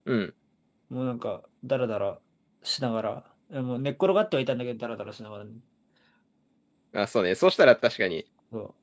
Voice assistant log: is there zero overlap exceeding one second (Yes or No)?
Yes